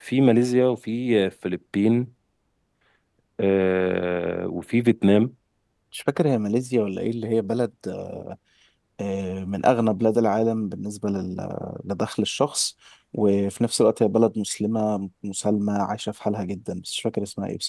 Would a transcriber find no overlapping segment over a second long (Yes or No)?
Yes